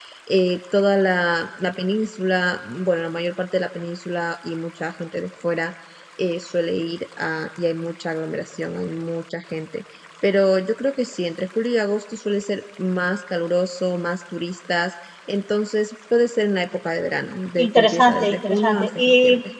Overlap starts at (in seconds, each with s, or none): 17.6 s